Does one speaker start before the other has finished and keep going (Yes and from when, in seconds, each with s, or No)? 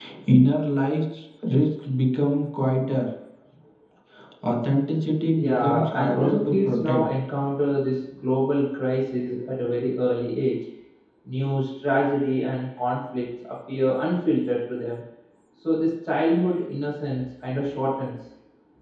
Yes, from 5.4 s